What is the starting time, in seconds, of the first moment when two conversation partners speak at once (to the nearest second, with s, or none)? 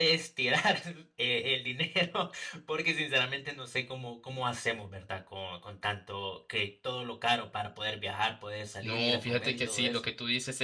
9 s